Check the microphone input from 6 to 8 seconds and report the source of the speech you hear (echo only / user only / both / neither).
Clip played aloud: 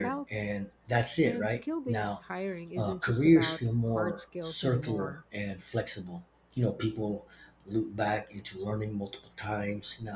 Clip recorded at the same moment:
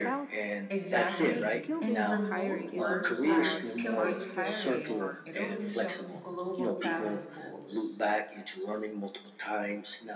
both